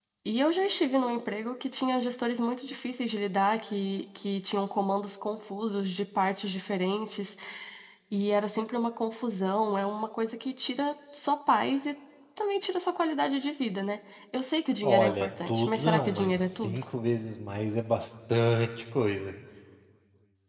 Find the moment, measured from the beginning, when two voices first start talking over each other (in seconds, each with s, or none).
14.8 s